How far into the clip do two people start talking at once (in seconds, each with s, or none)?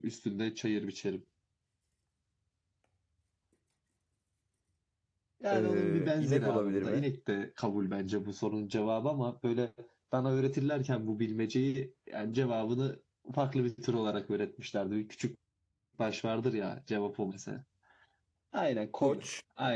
5.5 s